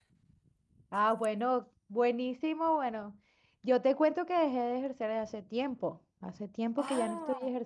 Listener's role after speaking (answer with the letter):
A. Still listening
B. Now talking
A